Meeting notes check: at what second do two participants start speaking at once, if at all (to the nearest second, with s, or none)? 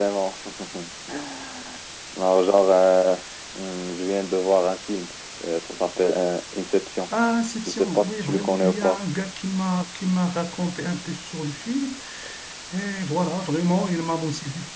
8 s